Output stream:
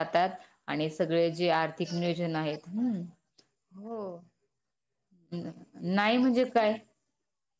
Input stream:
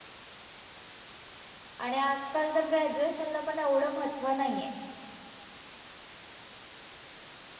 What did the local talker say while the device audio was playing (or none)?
आणि आजकाल तर ग्रॅज्युएशनला पण एवढं महत्त्व नाही आहे.